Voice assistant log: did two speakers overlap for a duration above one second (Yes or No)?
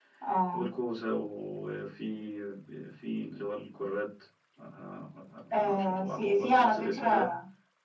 Yes